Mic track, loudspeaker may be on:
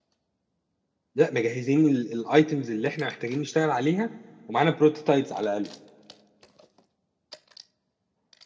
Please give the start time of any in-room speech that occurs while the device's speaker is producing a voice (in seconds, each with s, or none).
1.1 s